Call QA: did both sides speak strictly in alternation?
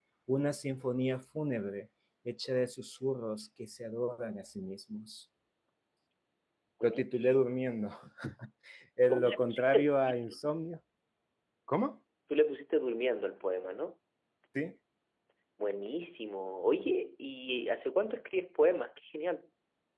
No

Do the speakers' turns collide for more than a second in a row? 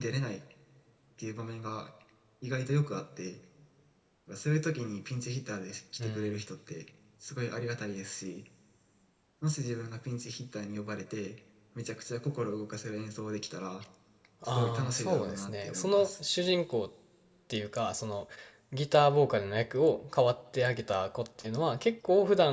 Yes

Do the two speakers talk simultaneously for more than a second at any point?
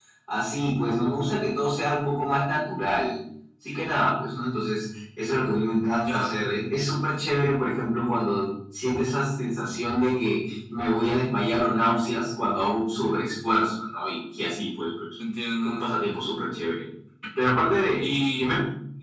No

